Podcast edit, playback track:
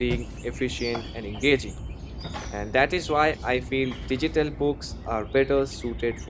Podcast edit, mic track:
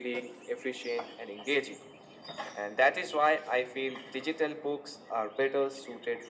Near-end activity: none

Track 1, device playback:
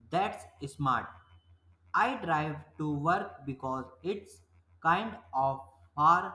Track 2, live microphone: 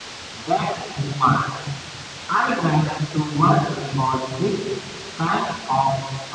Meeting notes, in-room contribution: none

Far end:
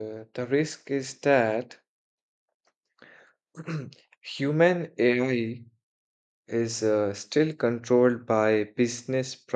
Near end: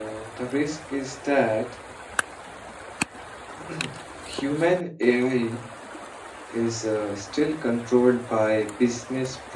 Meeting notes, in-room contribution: none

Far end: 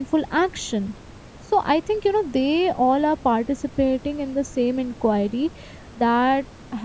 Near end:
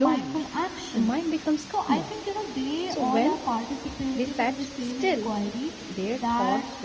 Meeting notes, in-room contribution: present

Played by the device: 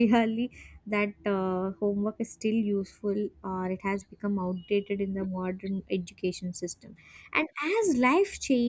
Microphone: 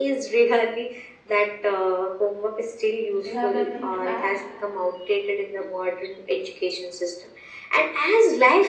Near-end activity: present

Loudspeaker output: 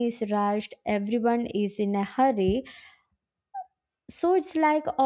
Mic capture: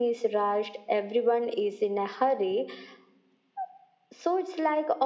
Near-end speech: none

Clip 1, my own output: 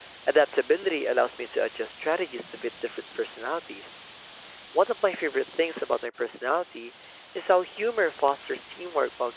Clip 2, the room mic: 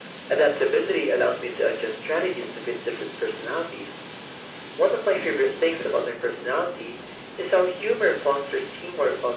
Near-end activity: none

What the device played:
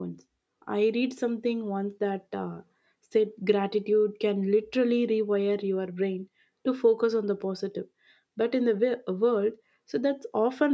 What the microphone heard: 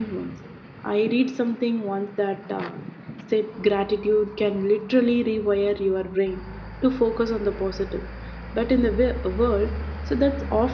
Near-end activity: none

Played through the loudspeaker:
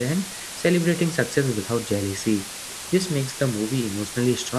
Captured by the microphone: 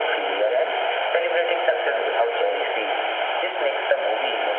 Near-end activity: none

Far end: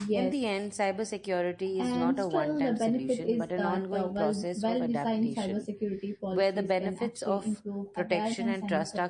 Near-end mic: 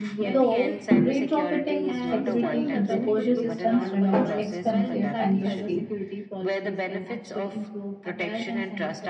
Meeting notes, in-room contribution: present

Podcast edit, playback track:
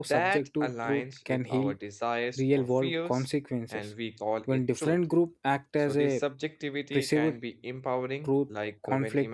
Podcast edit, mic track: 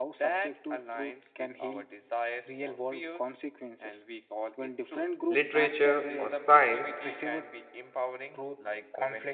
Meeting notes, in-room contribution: present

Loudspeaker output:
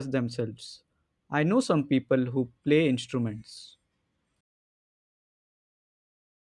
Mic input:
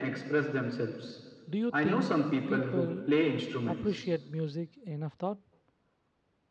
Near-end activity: present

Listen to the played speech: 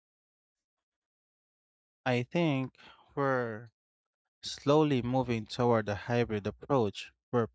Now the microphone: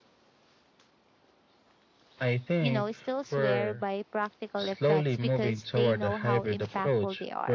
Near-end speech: present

